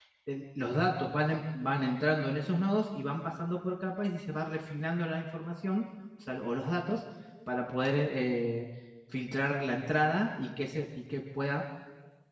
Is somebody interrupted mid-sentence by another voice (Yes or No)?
No